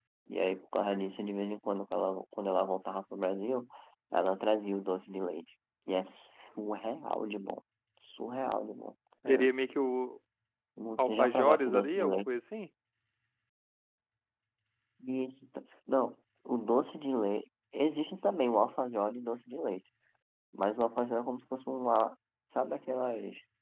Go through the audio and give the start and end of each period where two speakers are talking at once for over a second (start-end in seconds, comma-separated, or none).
11.0-12.3